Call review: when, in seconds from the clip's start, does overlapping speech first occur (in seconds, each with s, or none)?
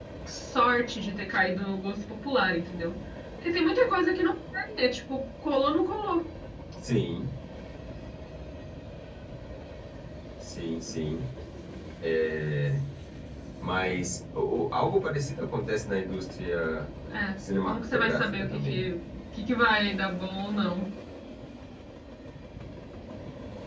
17.6 s